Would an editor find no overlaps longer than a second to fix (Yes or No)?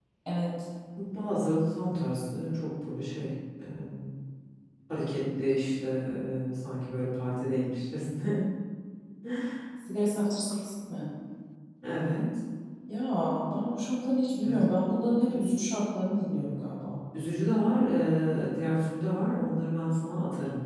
Yes